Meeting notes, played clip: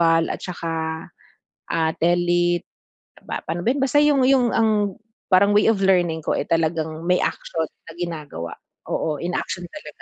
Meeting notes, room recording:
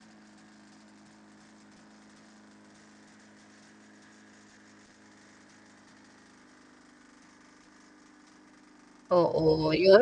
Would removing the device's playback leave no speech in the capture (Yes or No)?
No